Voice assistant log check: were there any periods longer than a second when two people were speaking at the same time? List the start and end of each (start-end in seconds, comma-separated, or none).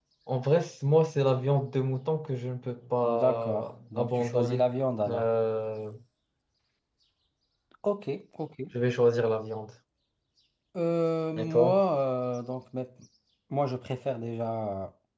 3.0-4.7